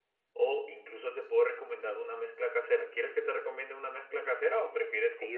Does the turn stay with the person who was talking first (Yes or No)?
No